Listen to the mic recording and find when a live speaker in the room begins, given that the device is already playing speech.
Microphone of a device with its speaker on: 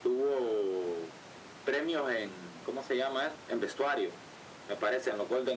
none

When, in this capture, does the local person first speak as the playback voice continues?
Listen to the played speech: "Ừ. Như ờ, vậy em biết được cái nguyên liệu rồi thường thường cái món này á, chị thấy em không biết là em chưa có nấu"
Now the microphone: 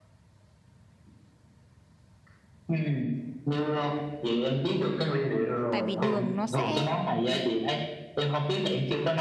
6 s

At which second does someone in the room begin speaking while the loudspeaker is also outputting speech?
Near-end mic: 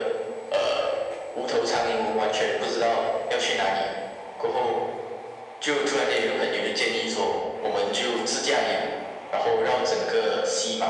none

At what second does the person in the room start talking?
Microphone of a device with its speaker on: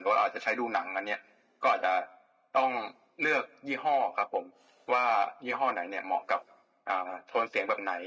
none

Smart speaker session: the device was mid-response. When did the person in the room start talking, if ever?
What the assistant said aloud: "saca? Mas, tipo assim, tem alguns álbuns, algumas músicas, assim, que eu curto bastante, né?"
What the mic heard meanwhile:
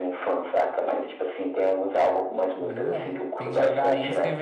3 s

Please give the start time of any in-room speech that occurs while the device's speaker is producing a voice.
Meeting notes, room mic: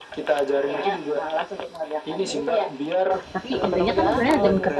3 s

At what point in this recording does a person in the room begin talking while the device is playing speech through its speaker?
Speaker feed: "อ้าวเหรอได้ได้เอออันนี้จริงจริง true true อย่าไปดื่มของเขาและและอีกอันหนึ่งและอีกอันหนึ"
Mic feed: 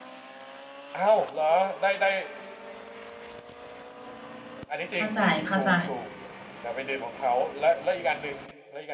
5 s

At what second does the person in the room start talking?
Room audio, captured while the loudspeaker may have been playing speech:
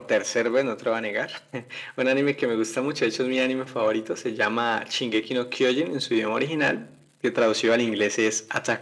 none

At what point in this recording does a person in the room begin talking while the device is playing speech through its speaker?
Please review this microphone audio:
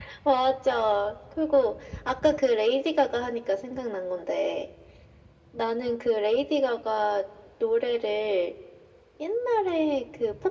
none

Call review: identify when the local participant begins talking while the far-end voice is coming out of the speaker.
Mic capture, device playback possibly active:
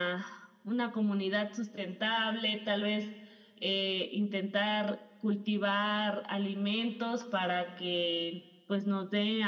none

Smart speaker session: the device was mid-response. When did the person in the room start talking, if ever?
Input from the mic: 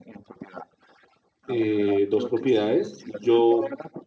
1 s

